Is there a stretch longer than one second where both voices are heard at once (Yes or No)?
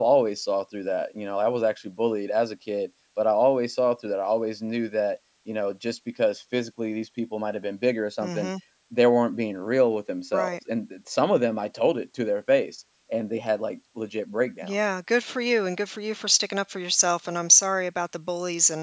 No